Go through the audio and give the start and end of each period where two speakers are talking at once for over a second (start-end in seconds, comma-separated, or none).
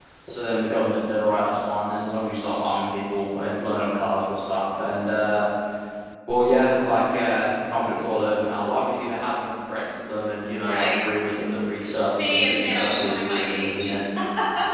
12.0-13.9